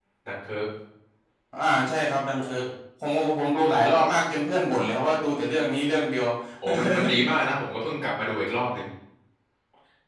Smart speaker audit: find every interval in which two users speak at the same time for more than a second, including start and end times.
none

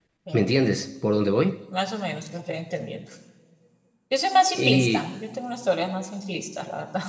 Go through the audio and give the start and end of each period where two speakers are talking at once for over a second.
none

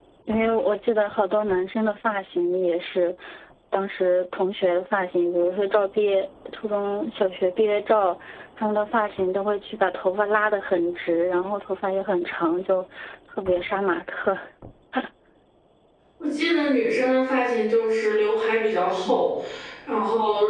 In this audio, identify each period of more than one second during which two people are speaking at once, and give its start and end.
none

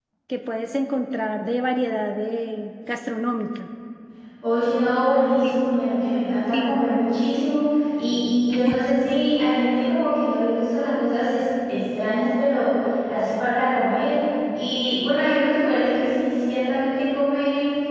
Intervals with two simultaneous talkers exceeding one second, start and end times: none

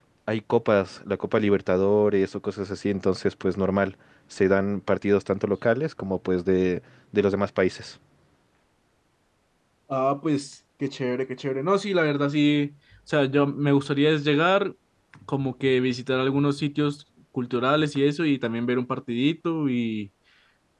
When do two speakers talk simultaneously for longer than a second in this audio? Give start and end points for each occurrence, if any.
none

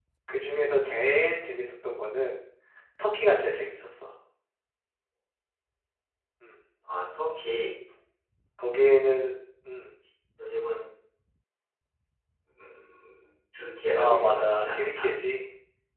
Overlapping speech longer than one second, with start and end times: 13.9-15.2

